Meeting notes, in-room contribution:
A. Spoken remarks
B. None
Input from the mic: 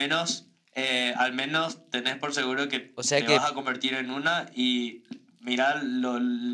A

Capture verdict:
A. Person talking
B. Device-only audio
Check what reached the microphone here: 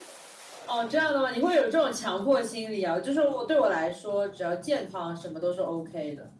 A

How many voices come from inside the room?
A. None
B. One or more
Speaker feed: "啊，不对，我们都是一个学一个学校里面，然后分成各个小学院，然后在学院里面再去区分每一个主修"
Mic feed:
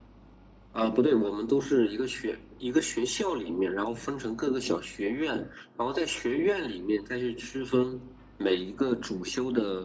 A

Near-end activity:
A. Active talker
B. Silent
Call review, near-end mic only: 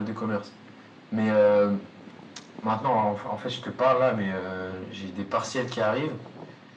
B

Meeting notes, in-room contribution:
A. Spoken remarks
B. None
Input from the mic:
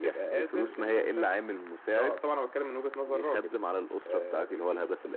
B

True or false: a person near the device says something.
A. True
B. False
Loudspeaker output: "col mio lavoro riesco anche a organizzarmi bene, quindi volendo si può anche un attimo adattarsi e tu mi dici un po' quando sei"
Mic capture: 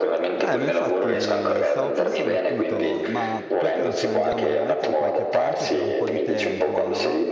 A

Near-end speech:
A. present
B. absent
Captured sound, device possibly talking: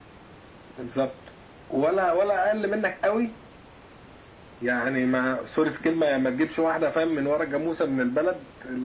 B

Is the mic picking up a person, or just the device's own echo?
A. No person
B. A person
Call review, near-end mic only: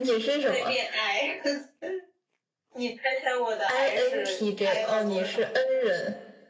B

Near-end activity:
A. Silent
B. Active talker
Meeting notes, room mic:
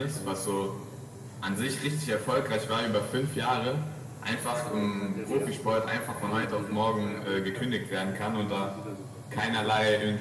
B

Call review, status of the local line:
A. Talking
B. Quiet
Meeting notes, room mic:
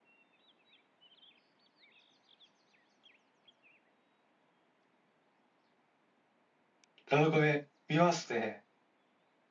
A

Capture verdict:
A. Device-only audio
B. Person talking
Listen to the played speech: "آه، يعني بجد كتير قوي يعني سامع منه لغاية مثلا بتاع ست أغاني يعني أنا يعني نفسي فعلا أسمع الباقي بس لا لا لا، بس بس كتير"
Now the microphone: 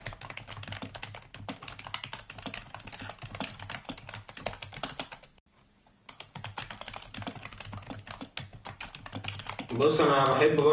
B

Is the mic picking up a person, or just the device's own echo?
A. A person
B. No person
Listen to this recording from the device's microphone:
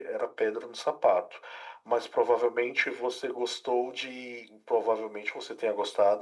B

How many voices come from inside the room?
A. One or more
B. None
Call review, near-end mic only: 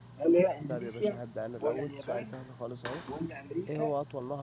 A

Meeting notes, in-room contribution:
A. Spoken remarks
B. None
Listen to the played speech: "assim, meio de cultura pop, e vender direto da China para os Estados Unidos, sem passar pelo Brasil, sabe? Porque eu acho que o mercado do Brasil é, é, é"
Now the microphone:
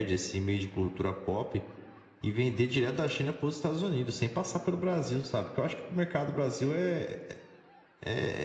B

